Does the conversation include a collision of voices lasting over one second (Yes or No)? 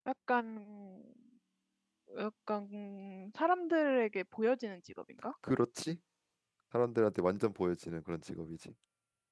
No